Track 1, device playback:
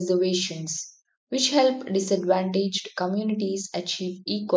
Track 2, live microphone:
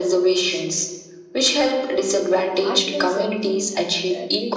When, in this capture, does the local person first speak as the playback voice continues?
3 s

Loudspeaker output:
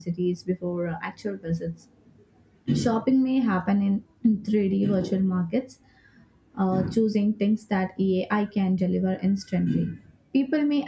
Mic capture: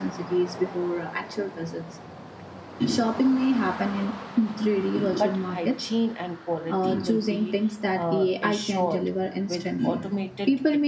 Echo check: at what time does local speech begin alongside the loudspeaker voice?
5 s

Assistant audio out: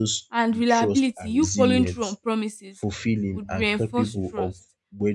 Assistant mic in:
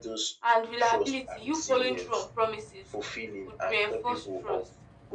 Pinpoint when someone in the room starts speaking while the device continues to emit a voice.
none

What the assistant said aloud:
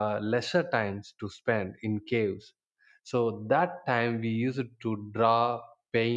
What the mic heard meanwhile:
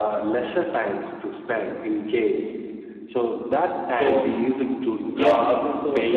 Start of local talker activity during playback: 4 s

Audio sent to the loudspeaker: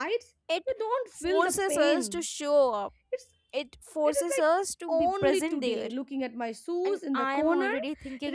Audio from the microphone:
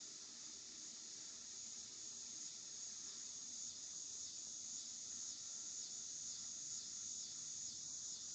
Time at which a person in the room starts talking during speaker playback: none

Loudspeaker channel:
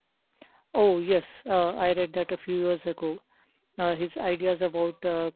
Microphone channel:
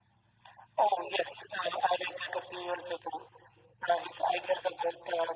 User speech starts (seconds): none

